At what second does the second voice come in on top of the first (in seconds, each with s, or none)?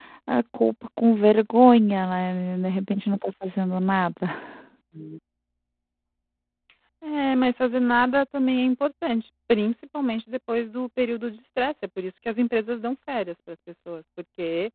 none